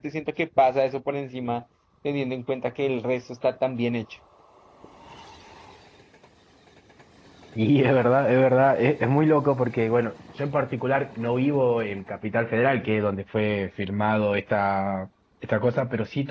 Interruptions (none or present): none